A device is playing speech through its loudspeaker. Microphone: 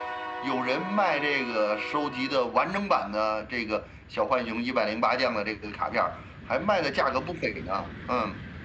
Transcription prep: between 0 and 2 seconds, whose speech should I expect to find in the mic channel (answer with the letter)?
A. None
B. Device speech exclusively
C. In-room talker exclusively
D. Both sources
B